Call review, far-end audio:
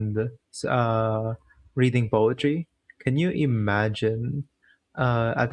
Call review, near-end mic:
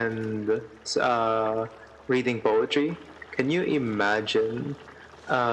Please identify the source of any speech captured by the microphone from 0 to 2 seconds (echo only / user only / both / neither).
echo only